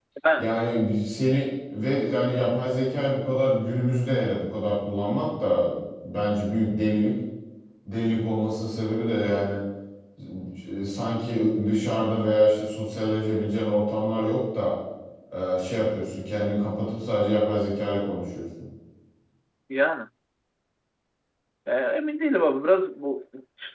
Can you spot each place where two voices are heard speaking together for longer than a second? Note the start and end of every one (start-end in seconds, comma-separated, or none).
none